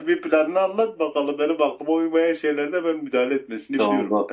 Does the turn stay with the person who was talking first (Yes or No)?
No